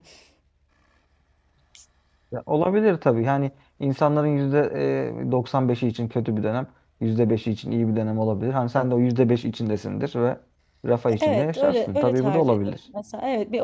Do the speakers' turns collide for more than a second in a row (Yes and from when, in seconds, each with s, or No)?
Yes, from 11.2 s